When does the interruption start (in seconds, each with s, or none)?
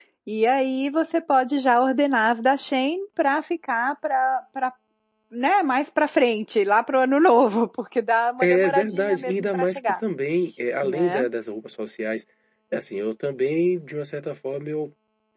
8.4 s